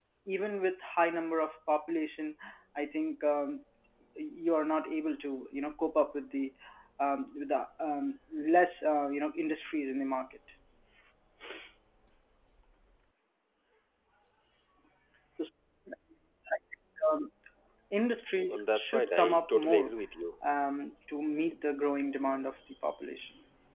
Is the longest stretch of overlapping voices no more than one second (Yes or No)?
No